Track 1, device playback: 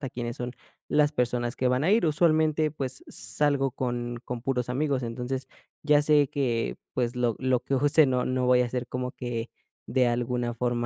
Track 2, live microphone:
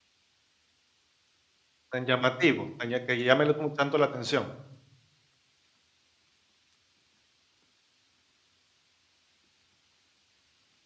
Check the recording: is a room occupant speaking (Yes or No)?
Yes